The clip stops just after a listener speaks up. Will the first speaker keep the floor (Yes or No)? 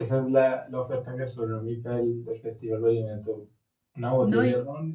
Yes